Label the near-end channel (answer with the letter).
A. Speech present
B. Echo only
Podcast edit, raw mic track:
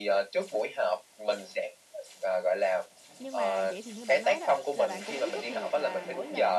A